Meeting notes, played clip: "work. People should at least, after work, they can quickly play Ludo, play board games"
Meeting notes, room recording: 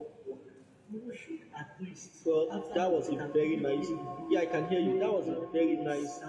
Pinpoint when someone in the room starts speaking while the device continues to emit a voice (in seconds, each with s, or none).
2.2 s